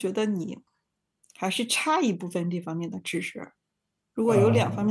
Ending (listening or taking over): listening